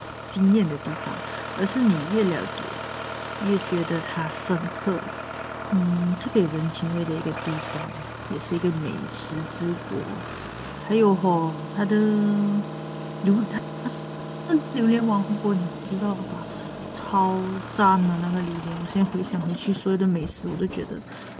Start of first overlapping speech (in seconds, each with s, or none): none